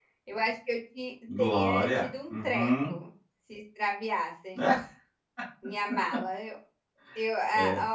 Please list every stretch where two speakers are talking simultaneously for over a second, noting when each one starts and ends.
1.4-2.7

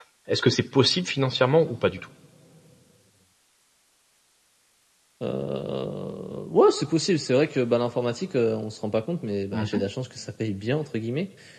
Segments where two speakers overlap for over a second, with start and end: none

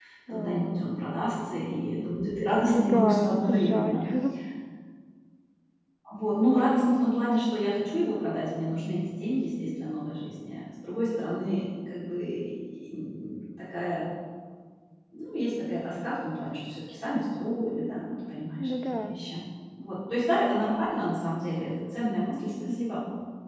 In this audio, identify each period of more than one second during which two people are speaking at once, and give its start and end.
2.6-4.0

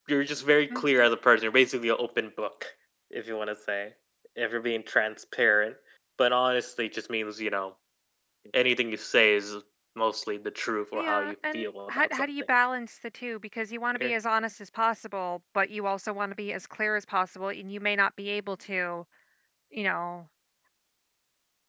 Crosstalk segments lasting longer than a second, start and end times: 10.9-12.2

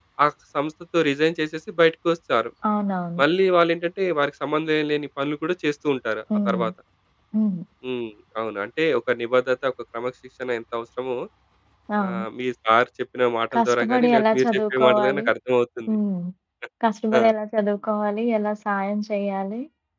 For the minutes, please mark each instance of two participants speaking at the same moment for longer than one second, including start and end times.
13.5-15.3

